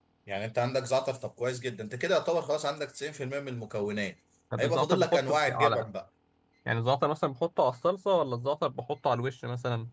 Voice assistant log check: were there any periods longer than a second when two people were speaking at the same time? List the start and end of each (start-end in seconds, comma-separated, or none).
4.6-5.8